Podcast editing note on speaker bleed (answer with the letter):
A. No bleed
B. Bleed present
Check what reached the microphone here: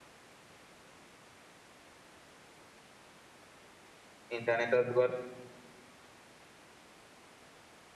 A